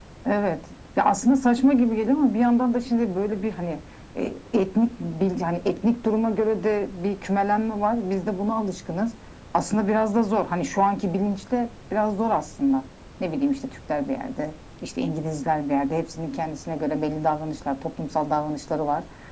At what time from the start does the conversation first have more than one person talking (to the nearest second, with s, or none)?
none